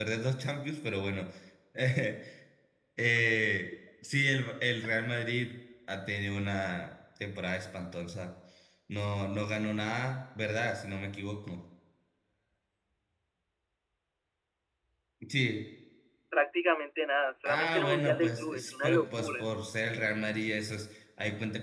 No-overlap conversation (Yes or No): No